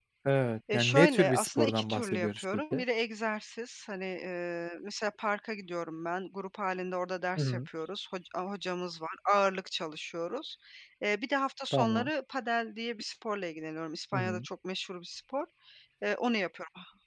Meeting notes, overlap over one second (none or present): present